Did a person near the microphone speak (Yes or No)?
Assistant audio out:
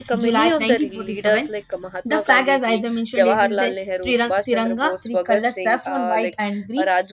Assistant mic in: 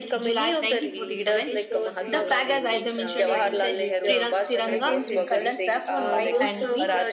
Yes